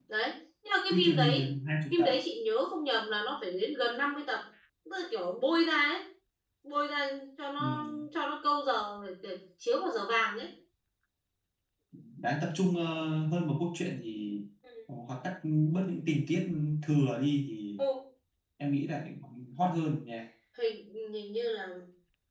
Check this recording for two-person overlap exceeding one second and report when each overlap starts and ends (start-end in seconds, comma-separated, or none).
none